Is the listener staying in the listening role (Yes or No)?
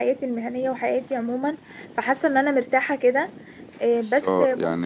No